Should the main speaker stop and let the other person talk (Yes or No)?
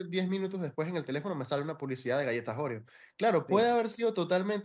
No